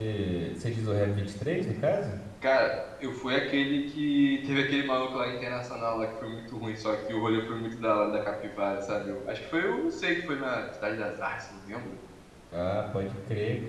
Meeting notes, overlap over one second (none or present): none